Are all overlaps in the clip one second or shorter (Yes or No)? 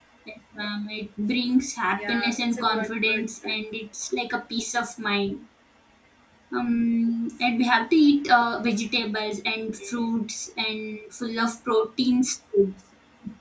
No